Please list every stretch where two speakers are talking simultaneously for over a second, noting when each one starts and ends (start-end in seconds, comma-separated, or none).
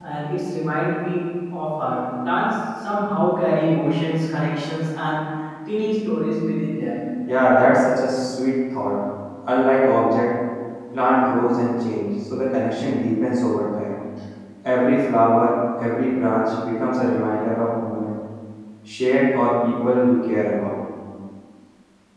none